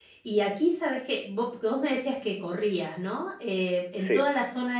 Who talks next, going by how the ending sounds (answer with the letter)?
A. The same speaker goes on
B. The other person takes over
A